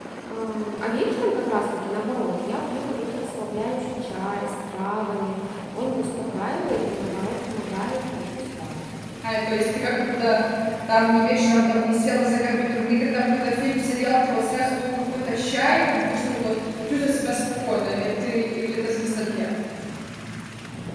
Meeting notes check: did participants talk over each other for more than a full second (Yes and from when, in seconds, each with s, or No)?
No